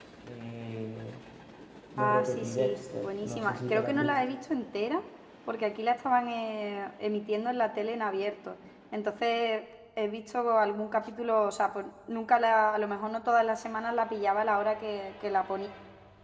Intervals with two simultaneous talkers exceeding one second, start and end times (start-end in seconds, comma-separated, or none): 2.0-4.2